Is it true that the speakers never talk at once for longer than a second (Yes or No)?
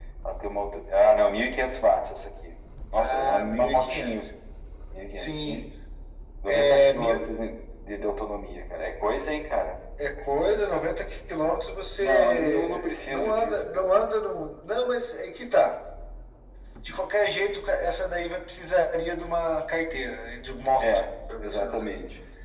No